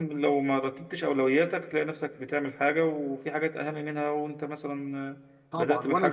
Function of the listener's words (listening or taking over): taking over